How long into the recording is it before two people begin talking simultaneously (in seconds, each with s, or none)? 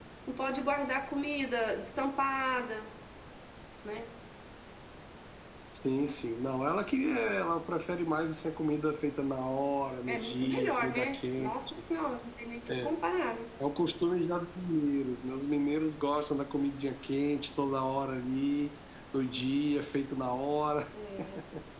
10.1 s